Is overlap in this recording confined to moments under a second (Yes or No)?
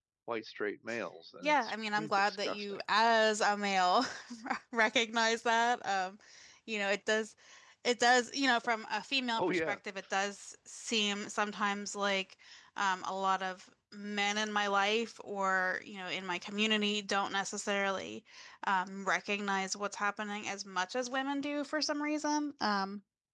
No